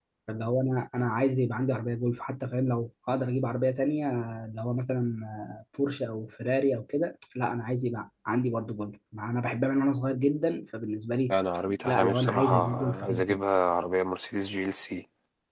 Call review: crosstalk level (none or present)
present